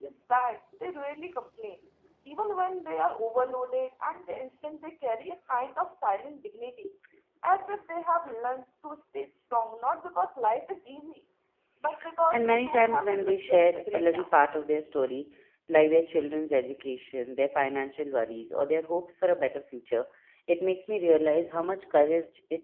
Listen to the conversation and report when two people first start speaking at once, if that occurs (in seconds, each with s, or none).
12.3 s